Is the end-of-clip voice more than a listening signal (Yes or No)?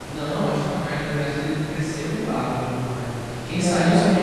No